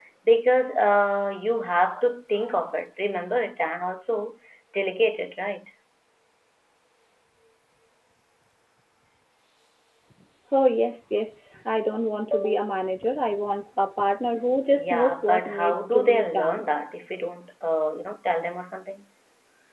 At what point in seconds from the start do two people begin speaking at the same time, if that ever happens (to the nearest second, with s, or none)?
15 s